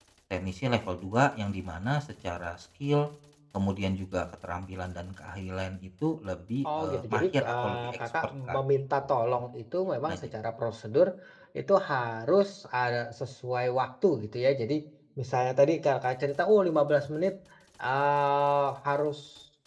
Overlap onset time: 6.6 s

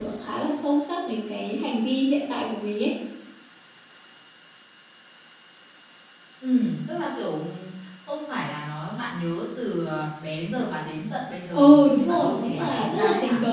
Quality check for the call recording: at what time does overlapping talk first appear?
11.5 s

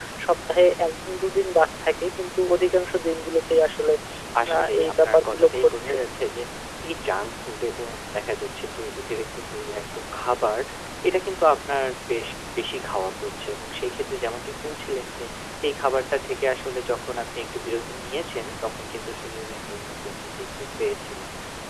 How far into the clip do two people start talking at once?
4.5 s

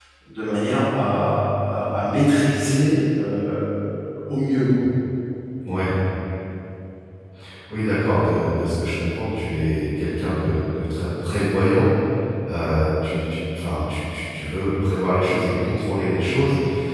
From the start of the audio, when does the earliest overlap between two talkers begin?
none

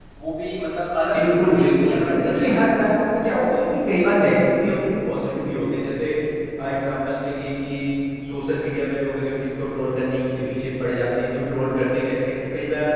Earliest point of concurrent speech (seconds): 1.2 s

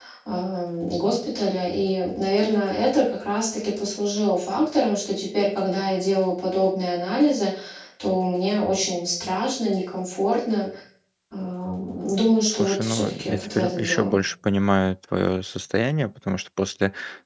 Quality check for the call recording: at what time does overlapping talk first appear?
12.5 s

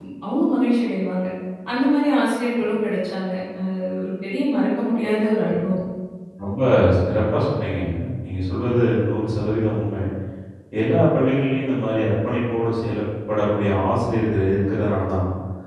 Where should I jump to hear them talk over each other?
none

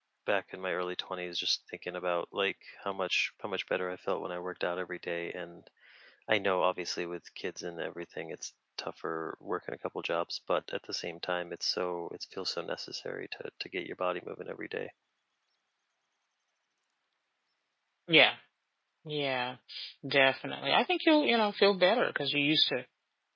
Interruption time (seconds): none

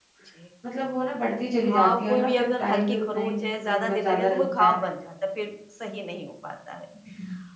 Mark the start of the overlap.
1.6 s

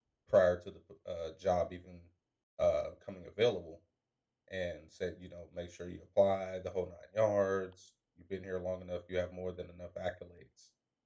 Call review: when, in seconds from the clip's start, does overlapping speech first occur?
none

